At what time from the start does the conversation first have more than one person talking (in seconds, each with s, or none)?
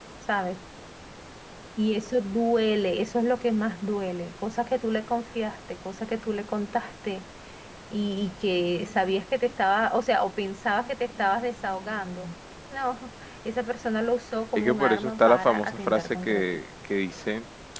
14.6 s